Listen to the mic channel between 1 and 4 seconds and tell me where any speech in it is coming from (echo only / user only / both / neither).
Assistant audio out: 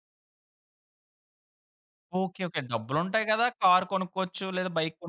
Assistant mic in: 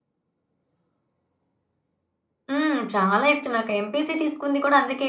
user only